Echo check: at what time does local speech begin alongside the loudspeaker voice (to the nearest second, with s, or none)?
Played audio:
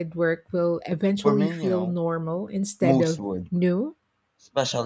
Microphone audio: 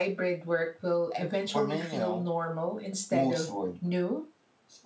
none